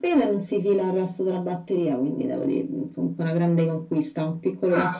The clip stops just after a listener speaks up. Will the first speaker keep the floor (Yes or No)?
No